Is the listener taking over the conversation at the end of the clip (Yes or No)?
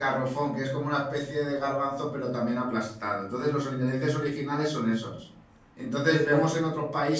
No